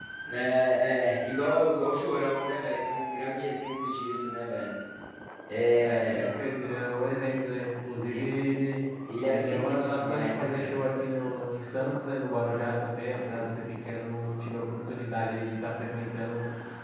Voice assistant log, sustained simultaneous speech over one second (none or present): present